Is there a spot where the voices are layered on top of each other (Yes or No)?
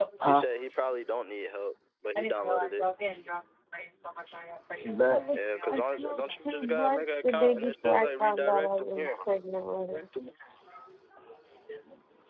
Yes